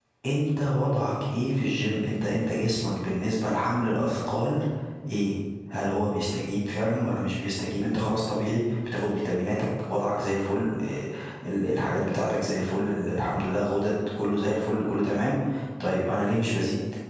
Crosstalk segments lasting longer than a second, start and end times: none

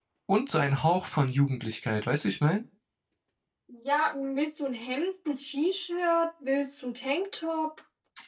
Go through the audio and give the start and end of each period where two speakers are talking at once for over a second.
none

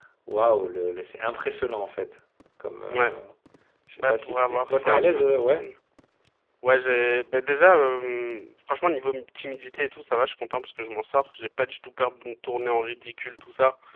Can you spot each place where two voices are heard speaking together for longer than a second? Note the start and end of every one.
4.0-5.7

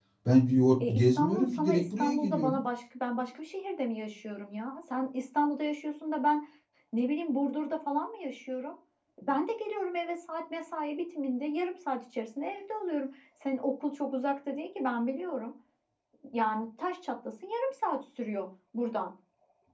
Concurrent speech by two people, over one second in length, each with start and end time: 0.9-2.6

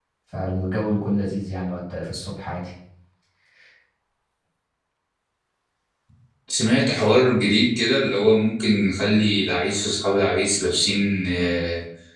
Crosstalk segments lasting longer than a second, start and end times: none

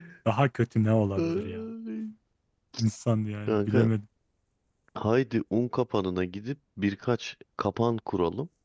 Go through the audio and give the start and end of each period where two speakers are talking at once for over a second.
none

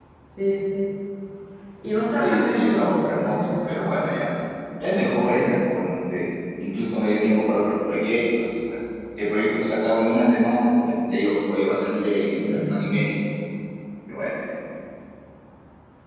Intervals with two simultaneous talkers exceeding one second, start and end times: 2.2-4.1

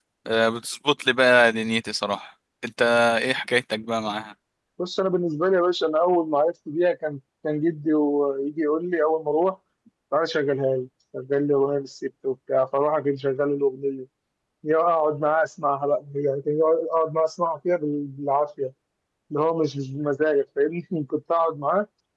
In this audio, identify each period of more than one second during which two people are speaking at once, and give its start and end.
none

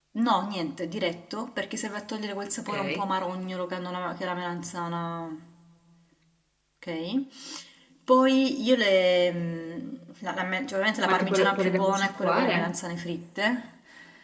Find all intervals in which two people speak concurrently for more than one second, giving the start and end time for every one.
11.1-12.7

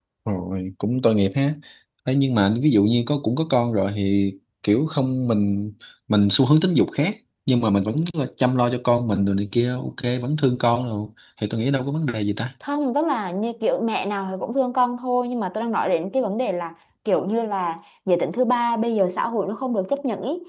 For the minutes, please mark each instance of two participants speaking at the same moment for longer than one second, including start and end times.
none

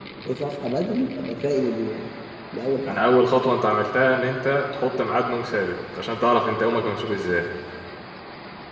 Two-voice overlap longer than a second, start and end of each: none

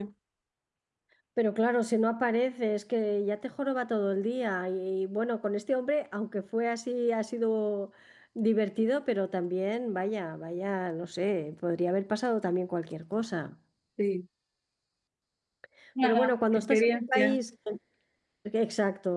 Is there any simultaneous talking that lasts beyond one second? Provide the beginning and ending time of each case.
16.0-17.4

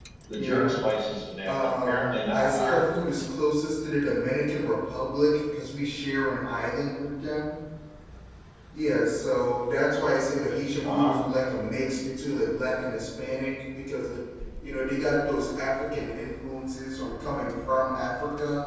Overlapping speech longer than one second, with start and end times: 1.4-2.8

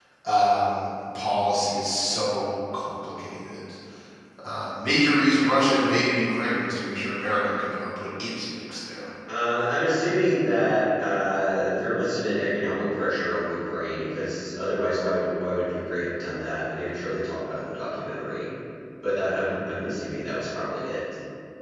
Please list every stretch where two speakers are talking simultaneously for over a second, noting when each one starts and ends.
none

